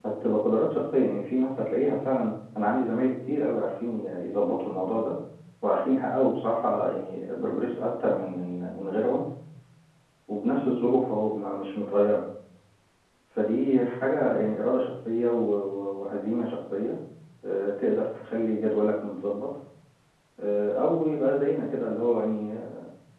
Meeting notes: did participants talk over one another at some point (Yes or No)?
No